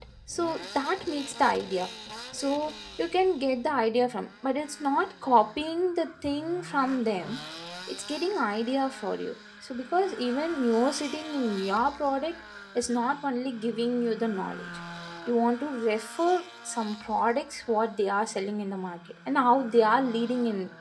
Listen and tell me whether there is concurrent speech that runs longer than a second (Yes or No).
No